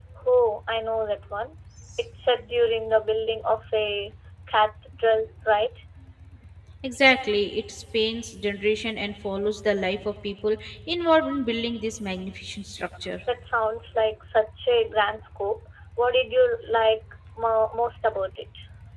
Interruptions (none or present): none